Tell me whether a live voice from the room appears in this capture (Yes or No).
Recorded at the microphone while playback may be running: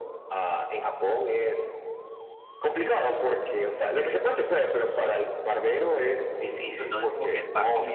Yes